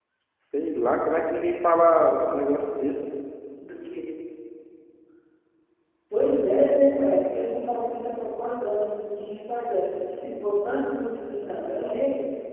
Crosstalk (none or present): none